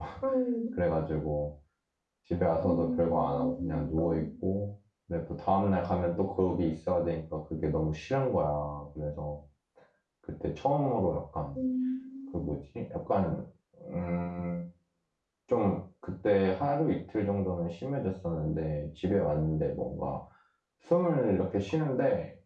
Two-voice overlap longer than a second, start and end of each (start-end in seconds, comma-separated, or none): 2.6-4.2